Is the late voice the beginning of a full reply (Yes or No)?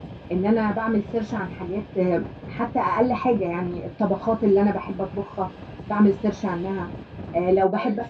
No